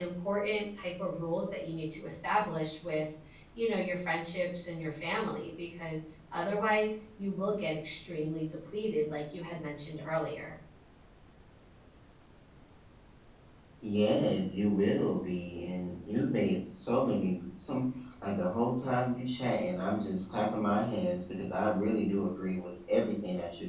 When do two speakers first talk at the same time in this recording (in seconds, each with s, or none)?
none